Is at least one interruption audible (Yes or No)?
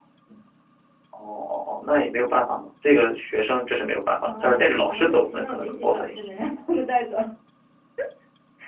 Yes